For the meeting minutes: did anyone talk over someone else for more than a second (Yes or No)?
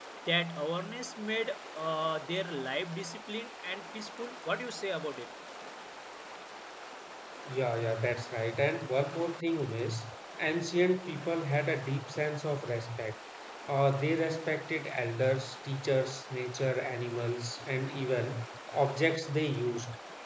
No